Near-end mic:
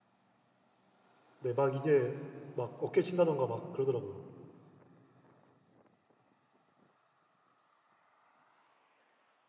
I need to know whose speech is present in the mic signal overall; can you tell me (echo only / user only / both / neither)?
user only